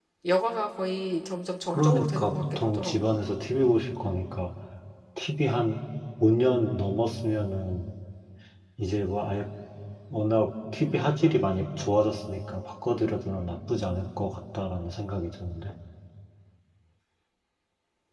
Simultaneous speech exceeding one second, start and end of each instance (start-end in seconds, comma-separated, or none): 1.7-3.1